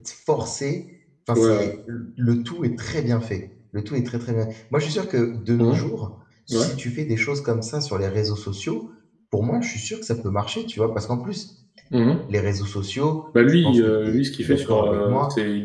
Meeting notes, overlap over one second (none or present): present